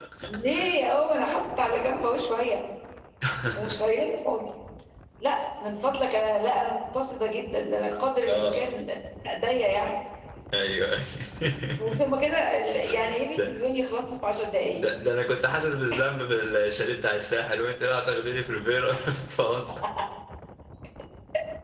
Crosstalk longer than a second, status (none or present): none